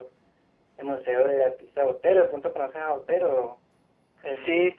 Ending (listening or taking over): taking over